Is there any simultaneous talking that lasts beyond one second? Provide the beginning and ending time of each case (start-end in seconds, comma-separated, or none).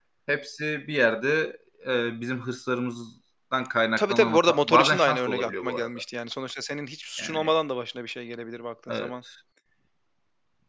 4.0-6.0